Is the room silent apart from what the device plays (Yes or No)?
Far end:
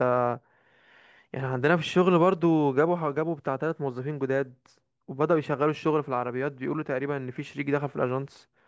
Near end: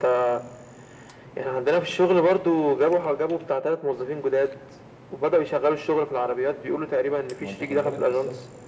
No